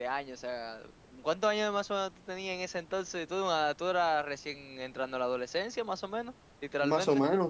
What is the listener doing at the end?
taking over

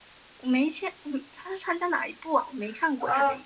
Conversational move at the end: taking over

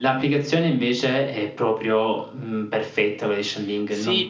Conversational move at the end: taking over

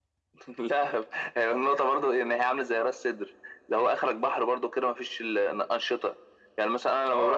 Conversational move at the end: taking over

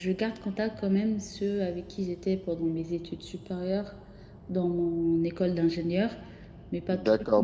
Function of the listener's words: taking over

